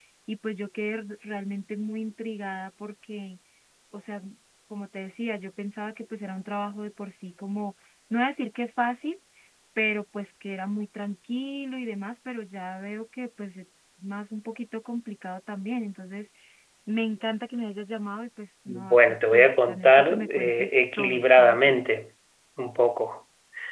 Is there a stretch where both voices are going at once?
Yes, from 18.7 s

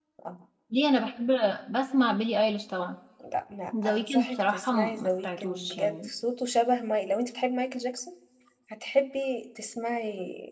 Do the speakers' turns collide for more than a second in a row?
Yes, from 3.8 s

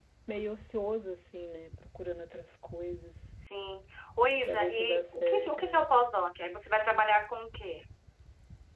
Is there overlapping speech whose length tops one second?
Yes, from 4.4 s

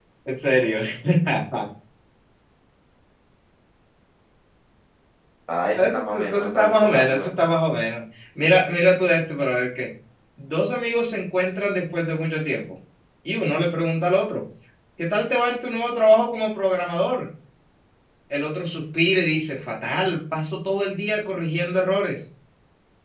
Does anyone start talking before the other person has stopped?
Yes, from 5.7 s

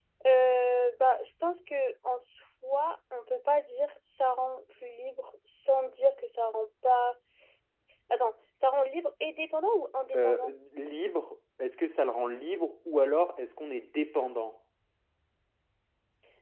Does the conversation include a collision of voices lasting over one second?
No

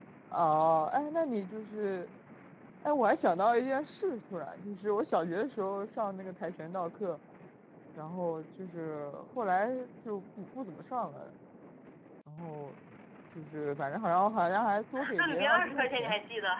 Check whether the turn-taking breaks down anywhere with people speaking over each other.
Yes, from 14.9 s

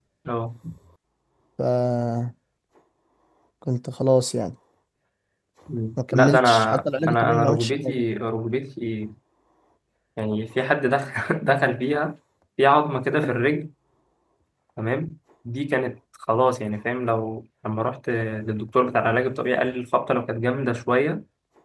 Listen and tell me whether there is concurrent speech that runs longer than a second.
Yes, from 6.0 s

